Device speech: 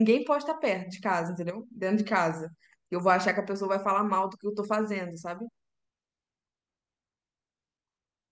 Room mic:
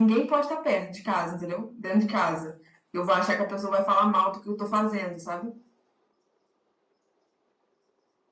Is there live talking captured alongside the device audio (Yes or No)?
No